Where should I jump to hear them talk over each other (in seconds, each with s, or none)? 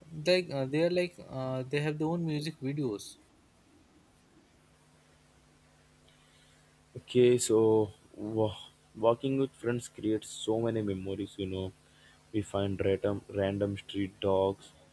none